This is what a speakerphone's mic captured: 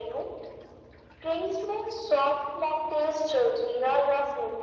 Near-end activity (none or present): none